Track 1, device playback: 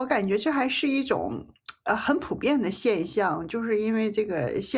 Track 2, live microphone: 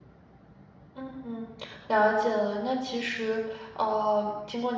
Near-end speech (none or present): present